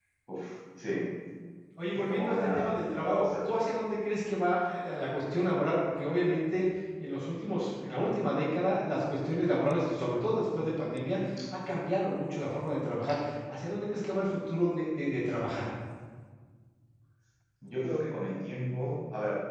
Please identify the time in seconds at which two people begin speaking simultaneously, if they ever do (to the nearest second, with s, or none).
2 s